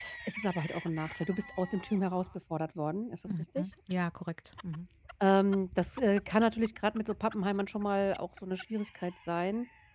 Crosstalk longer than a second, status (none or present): none